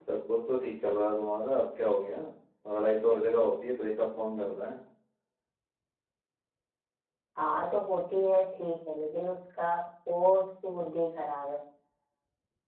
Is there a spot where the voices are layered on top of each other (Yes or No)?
No